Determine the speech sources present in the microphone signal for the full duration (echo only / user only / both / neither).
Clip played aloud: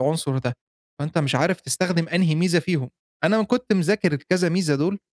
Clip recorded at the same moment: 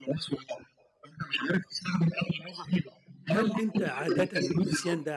both